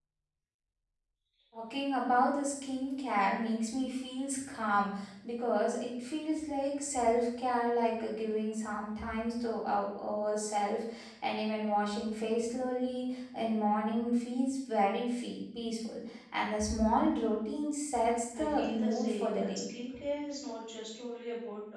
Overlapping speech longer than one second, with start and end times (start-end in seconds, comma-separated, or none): 18.4-19.6